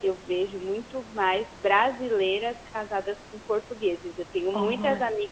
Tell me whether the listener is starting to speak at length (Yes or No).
No